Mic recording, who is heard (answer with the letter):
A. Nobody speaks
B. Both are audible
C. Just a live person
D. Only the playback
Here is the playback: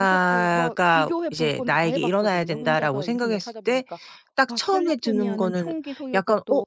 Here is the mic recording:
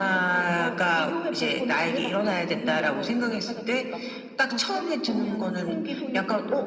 D